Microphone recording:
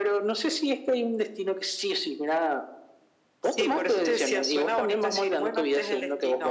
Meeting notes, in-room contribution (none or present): none